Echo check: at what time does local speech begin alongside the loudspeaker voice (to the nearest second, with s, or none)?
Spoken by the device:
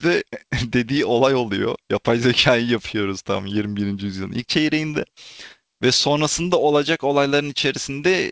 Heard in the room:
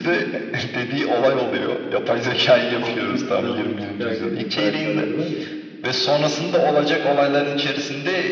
3 s